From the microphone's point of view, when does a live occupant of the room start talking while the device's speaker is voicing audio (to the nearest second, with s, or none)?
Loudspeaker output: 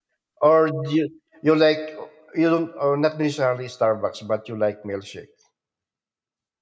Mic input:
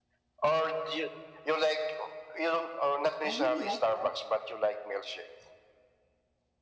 3 s